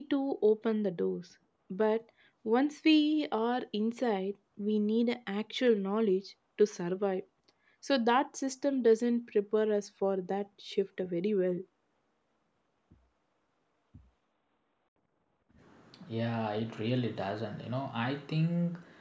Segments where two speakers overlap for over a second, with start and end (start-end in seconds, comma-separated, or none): none